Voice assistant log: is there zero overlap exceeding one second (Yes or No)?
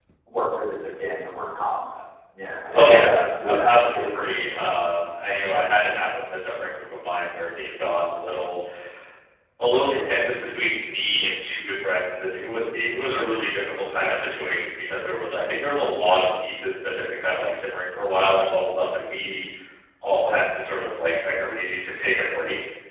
No